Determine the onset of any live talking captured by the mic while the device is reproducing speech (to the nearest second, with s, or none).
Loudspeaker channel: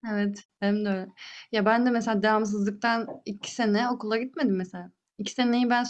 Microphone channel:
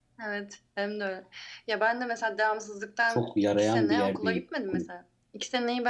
3 s